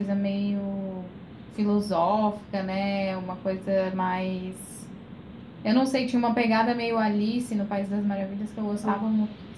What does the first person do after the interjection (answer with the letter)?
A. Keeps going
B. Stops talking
A